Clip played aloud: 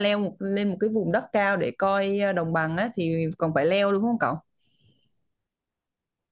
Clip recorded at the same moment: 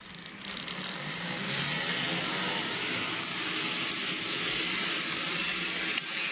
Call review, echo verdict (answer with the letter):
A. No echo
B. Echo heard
A